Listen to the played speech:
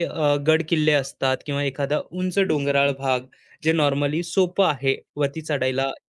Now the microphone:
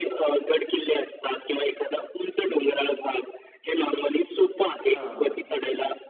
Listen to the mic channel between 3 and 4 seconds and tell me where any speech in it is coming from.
echo only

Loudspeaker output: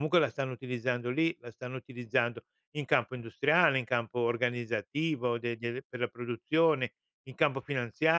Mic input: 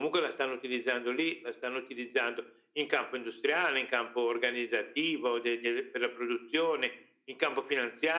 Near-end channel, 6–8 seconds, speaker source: echo only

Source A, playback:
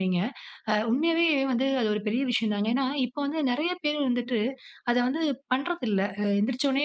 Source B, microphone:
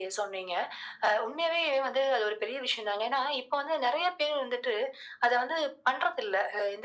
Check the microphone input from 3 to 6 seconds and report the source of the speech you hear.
echo only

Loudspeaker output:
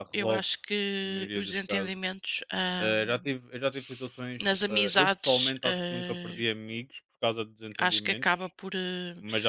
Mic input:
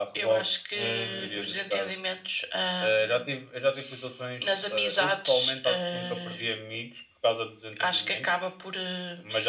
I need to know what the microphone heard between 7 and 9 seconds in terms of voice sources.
echo only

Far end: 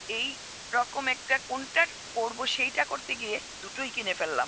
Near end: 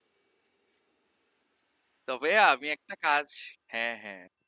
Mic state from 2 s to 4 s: user only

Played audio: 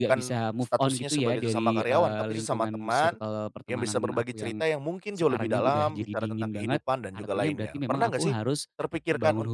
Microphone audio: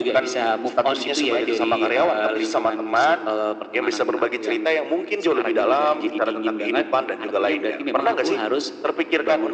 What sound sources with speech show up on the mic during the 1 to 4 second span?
echo only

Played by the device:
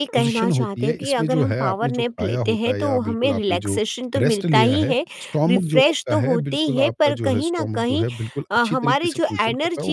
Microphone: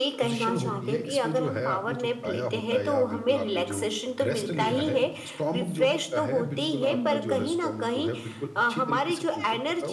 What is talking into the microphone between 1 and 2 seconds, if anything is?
echo only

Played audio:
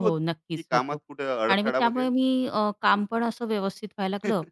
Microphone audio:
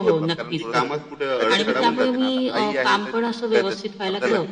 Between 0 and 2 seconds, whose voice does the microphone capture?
both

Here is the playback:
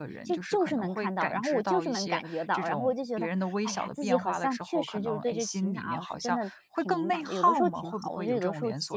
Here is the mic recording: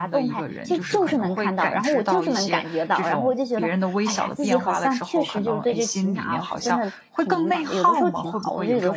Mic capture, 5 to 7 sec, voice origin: echo only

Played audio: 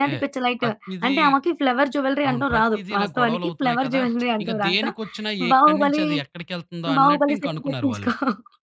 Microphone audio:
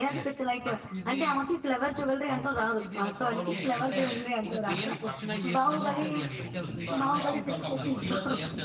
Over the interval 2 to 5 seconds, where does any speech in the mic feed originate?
both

